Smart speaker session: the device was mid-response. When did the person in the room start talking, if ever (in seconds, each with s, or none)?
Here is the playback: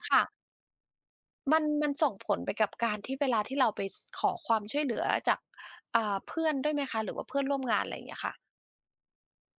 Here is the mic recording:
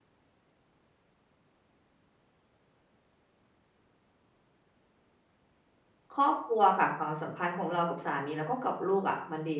6.1 s